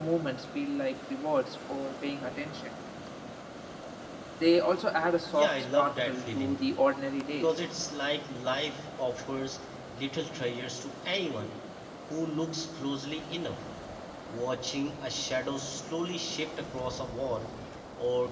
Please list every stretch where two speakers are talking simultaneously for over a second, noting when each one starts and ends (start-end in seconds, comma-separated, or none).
5.3-6.7